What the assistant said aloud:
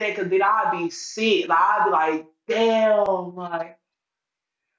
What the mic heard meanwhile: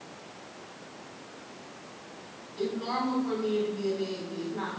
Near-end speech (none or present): present